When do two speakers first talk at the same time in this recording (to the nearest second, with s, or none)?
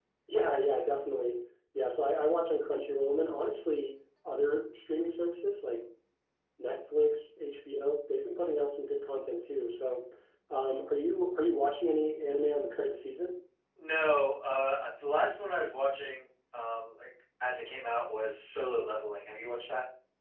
none